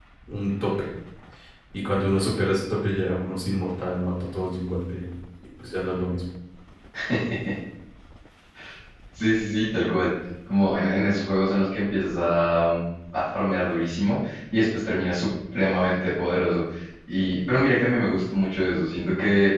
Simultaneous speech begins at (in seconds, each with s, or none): none